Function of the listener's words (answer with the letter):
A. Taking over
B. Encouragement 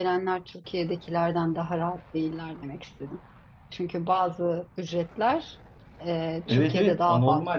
A